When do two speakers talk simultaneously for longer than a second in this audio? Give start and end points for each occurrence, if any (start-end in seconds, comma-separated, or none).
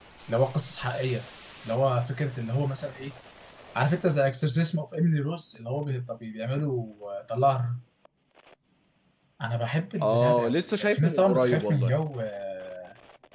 10.0-11.9